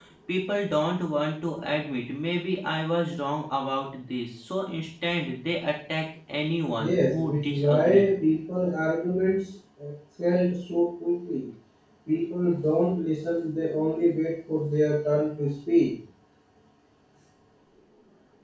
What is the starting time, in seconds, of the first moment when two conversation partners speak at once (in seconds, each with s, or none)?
6.8 s